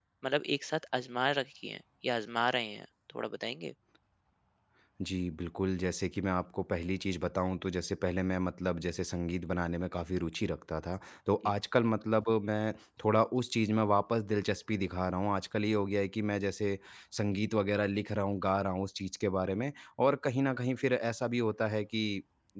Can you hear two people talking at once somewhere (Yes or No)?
No